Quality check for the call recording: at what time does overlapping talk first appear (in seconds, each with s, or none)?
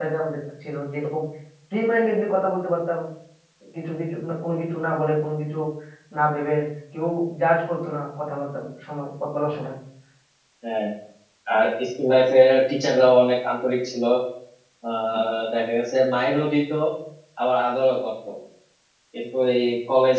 none